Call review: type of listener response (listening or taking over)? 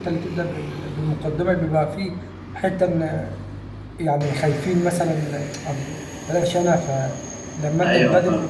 listening